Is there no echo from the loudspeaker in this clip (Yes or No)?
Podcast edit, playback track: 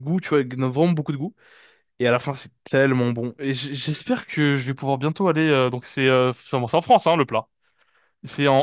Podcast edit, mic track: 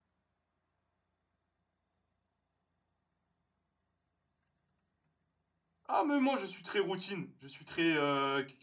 Yes